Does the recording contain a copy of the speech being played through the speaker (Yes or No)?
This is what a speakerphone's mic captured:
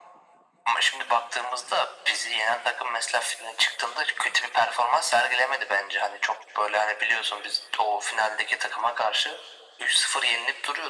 Yes